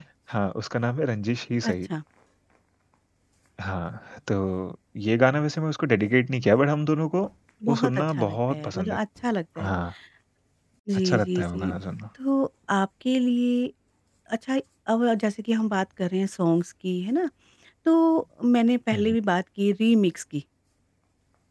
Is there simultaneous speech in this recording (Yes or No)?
Yes